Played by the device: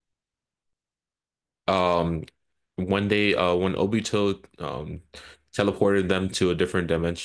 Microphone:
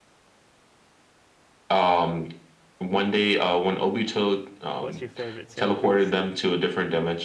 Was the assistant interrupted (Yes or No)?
Yes